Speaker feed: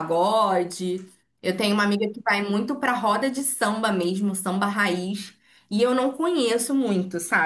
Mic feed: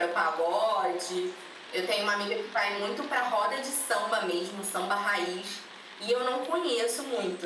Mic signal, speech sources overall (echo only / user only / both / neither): echo only